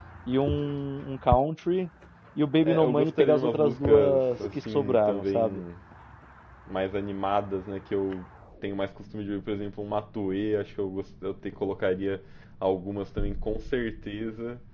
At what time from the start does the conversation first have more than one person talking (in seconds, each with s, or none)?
2.6 s